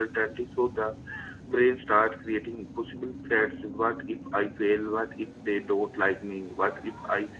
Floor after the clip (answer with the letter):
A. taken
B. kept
B